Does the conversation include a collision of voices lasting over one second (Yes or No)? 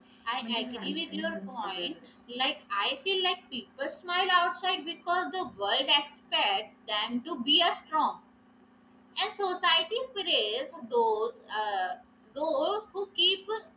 Yes